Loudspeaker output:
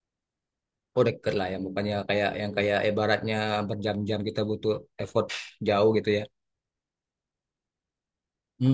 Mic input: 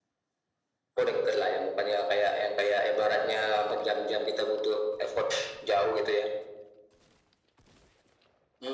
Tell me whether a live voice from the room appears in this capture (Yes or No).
No